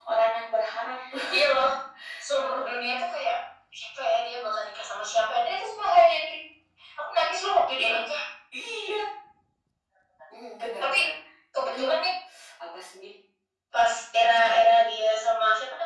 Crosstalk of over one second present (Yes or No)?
No